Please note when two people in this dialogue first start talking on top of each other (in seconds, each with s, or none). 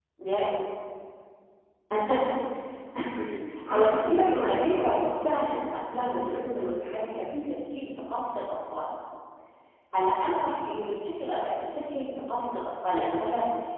3.7 s